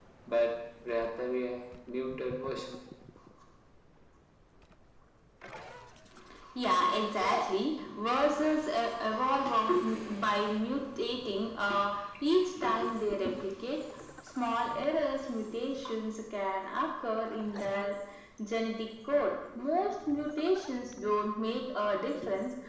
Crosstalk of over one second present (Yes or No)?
No